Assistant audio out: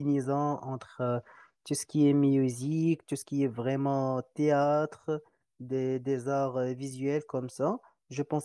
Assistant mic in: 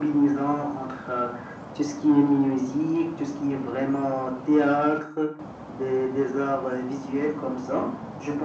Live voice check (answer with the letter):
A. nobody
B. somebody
A